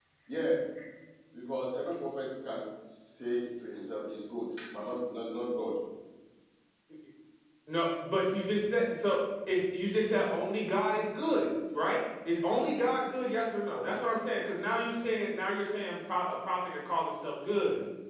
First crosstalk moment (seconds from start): none

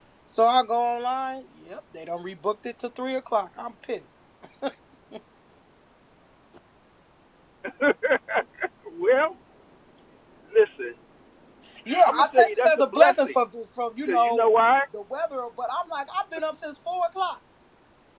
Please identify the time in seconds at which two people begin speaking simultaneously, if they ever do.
12 s

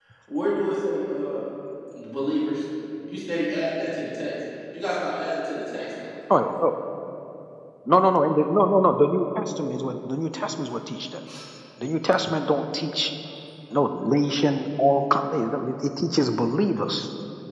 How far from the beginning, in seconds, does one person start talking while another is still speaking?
none

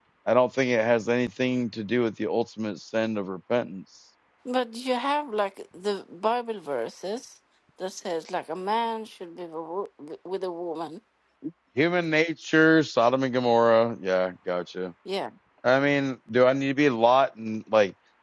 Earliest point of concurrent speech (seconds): none

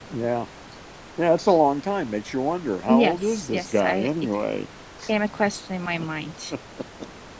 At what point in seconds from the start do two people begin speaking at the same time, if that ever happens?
3 s

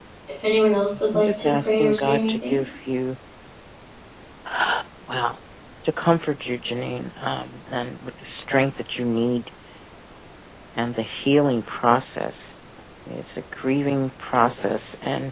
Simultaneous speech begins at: 1 s

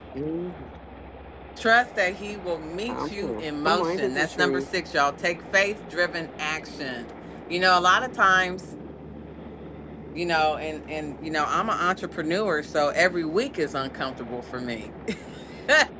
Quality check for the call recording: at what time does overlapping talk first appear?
3 s

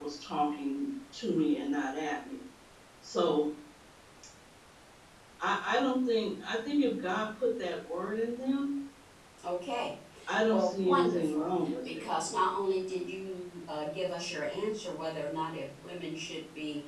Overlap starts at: 10 s

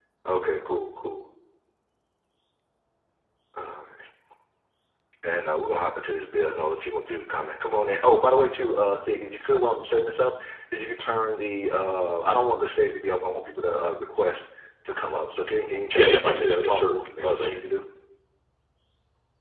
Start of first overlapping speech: 16 s

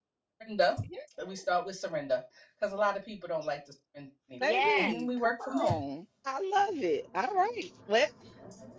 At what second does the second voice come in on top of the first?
4 s

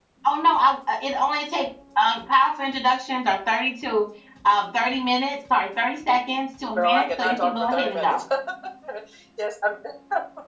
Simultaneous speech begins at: 7 s

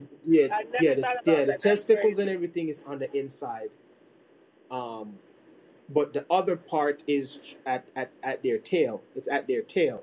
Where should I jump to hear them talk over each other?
1 s

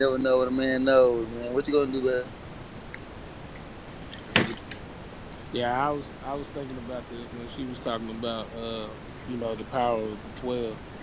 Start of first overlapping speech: none

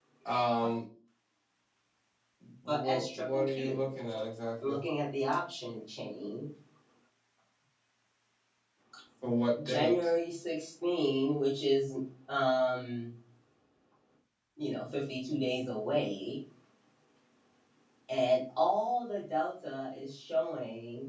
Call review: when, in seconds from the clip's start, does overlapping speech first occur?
3 s

